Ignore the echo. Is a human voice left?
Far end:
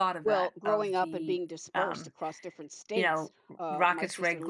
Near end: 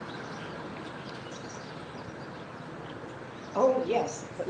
Yes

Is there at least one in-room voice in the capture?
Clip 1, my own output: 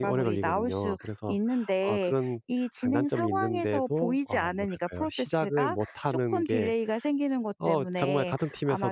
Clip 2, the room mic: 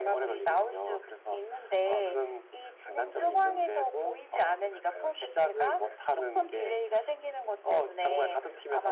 No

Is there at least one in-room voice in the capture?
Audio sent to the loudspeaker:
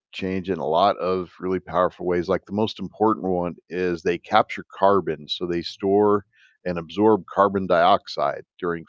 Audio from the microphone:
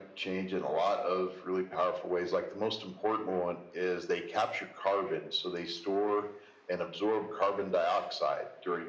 No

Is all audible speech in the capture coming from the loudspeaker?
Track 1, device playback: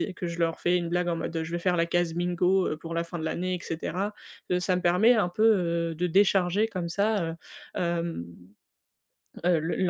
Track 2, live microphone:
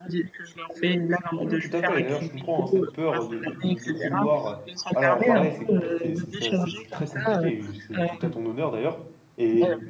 No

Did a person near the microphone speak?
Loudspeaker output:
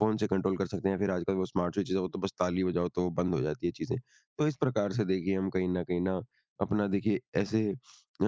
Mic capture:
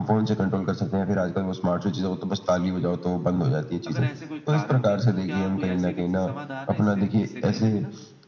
Yes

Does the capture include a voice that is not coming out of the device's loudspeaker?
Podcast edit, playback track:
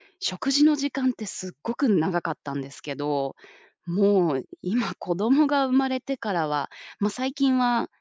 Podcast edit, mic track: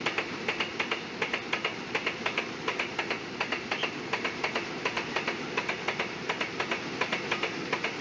No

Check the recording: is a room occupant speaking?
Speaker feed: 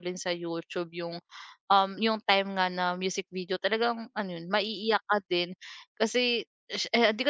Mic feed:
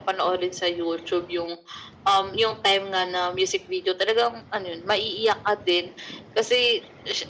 No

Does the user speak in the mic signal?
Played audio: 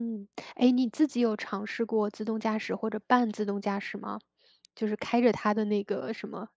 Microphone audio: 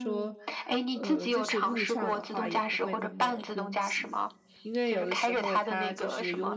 Yes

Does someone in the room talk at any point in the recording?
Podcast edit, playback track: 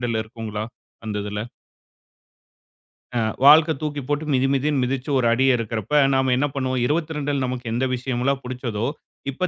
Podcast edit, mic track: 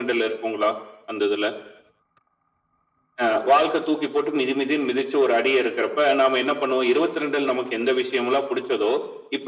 No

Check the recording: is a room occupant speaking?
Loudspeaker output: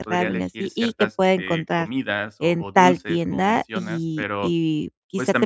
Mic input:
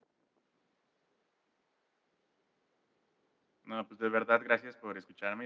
Yes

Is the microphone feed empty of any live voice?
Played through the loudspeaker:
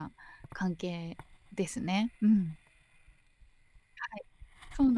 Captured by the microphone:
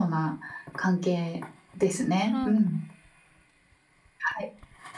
No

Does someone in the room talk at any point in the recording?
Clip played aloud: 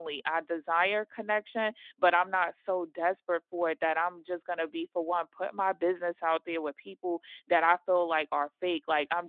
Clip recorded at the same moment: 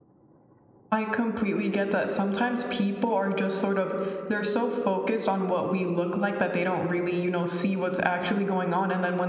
Yes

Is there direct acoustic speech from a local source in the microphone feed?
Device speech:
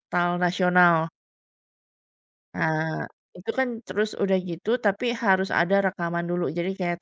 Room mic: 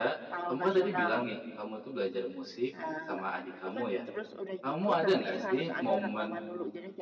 Yes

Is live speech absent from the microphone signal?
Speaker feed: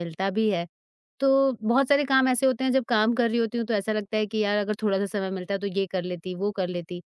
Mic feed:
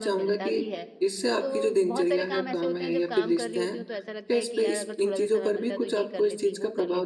No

